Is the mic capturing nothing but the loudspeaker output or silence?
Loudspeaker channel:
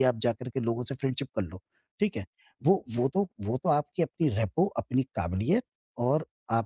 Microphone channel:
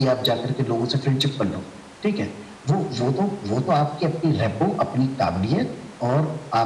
Yes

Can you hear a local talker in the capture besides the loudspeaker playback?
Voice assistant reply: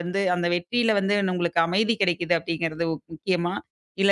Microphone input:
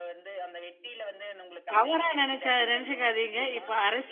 Yes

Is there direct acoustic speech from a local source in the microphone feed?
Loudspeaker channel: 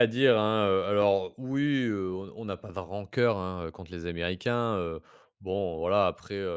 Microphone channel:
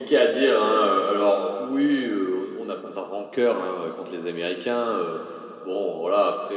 No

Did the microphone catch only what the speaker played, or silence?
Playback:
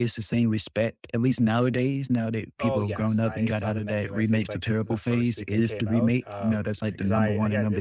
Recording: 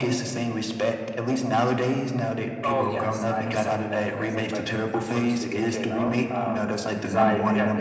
Yes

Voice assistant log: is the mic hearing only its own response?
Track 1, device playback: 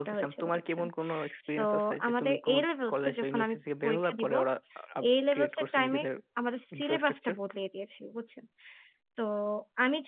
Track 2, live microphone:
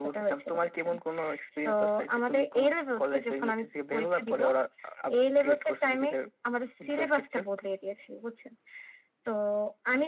Yes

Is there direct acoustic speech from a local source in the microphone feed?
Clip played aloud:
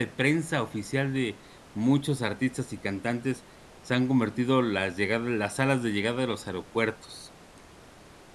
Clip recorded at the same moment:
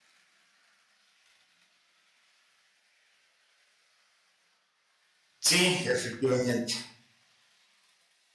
Yes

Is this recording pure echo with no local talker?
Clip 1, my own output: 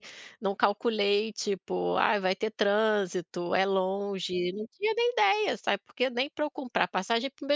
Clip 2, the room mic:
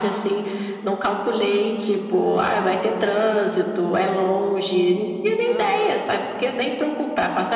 No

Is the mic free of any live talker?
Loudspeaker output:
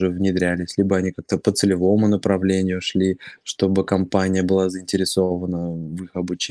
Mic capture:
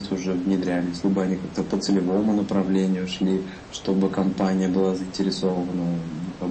Yes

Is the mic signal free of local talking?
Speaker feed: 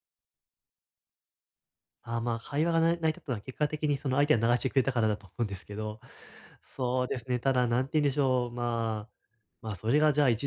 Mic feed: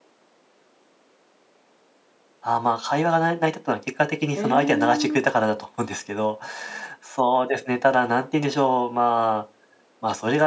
No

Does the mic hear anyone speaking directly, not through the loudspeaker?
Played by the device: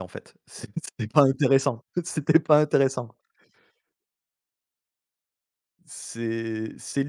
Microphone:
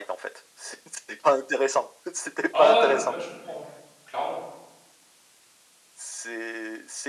Yes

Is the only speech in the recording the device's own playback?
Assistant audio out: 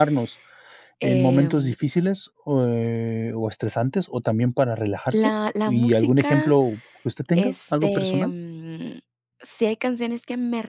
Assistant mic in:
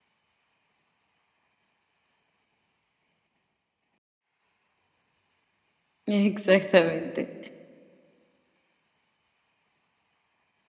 No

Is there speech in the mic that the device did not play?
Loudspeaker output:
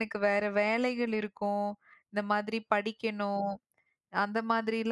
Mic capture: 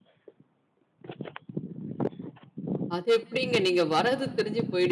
Yes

